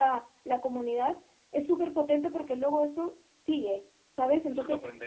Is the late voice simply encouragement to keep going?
No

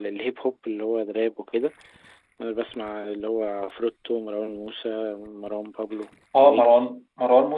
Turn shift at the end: Yes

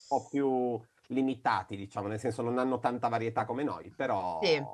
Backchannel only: No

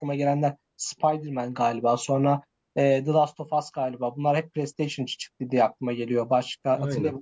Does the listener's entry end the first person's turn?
No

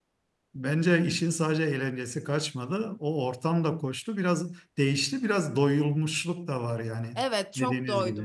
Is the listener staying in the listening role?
No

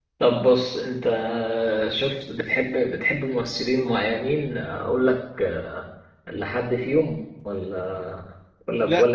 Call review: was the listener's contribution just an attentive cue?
No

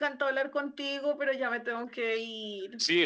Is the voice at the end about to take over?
Yes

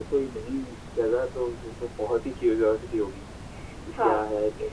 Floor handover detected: Yes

